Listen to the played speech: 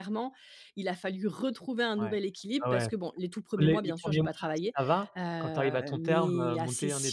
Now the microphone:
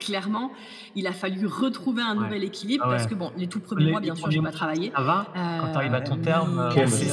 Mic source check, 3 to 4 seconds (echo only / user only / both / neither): echo only